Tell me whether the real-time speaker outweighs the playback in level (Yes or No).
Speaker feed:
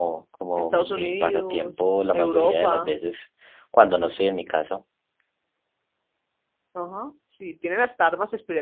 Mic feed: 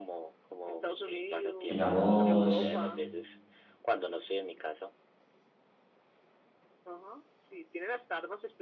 Yes